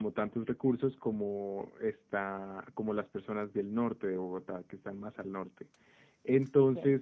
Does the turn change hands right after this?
No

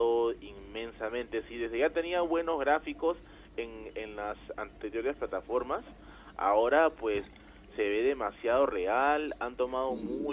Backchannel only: Yes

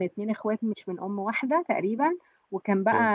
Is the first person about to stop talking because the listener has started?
No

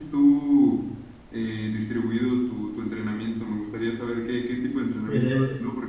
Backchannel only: Yes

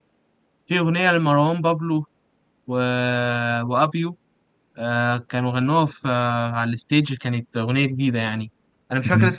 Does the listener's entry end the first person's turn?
No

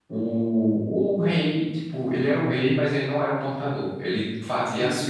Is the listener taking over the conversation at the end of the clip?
No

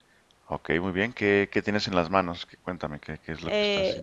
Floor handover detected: Yes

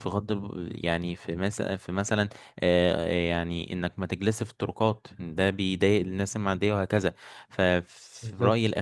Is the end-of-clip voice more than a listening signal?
No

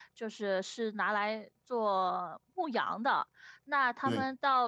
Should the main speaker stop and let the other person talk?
No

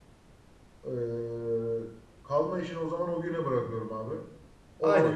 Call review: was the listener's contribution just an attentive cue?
No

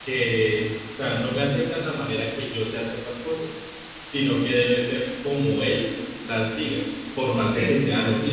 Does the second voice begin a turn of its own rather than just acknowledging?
No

